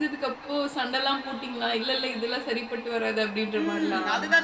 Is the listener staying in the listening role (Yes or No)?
No